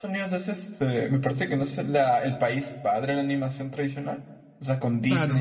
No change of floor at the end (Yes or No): No